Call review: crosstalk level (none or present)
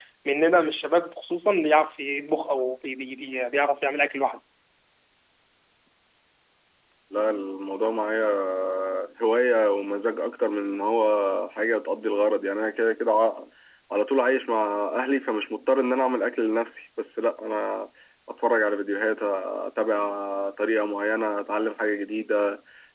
none